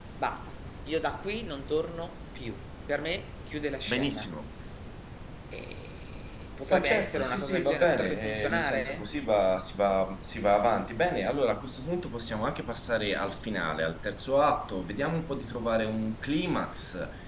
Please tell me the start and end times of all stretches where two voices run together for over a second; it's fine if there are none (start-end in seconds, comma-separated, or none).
6.7-9.1